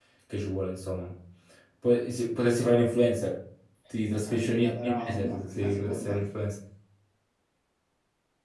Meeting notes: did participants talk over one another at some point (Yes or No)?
Yes